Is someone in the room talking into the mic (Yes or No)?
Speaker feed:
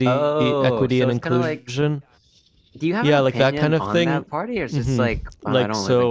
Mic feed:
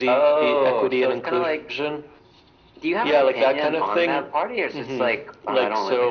No